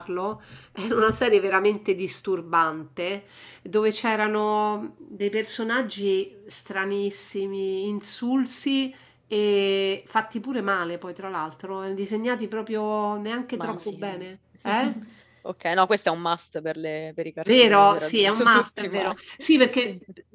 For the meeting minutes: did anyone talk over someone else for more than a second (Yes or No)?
Yes